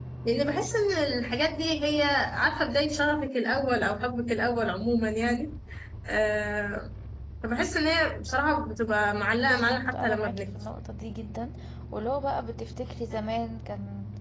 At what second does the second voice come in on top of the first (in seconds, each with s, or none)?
9.4 s